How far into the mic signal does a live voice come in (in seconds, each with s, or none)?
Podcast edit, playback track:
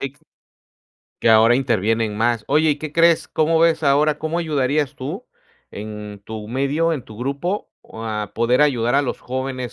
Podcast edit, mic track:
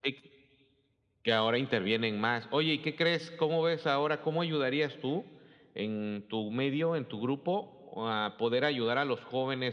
none